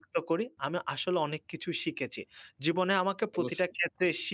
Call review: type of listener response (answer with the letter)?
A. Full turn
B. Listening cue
B